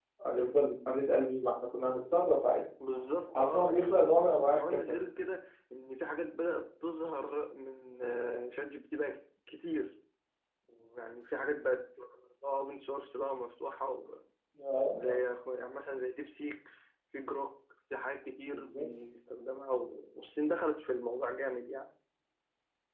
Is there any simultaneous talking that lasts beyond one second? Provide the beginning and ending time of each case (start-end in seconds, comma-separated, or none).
3.3-4.8